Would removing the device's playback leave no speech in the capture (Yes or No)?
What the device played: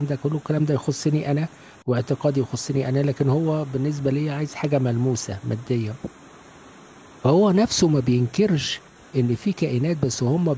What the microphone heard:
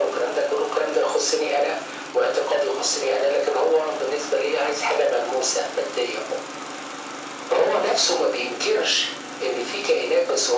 Yes